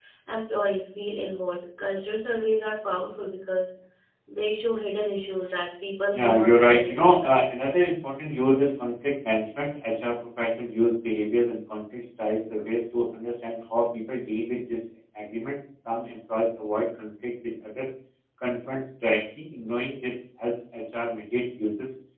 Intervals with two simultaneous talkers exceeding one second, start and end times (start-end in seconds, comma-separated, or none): 6.1-7.5